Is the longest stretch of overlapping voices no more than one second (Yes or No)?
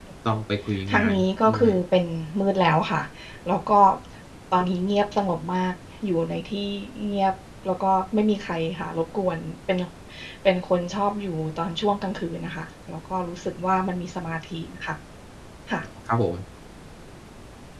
Yes